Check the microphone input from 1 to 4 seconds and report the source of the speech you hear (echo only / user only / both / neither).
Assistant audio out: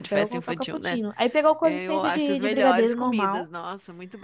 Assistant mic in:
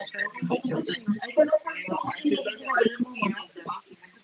echo only